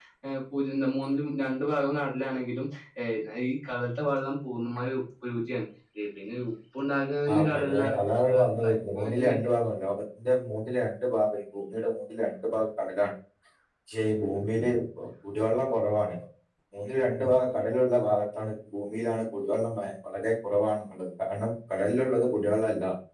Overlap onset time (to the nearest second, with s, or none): 7 s